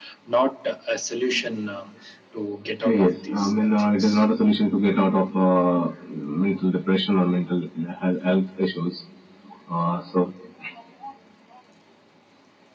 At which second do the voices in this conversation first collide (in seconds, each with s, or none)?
2.8 s